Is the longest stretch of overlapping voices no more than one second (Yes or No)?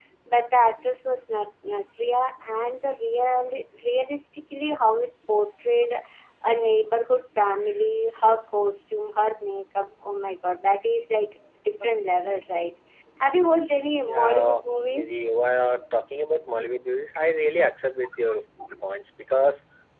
No